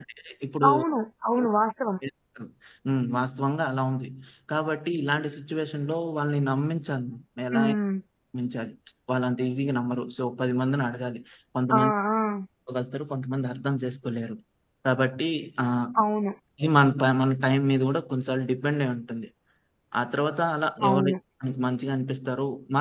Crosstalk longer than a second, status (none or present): none